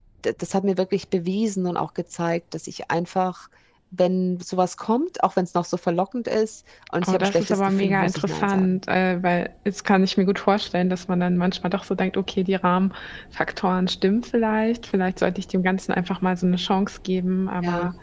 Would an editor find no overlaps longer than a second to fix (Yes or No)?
No